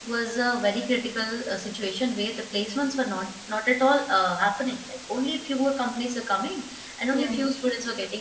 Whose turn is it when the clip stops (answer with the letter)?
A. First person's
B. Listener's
A